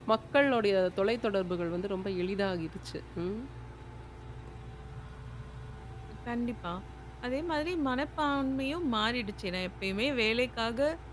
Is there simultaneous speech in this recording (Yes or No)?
No